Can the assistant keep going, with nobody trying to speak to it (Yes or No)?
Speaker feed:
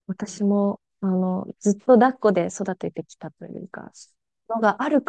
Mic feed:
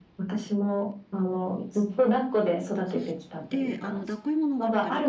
No